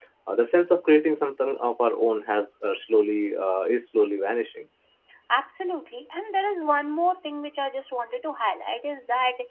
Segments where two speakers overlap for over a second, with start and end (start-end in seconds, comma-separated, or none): none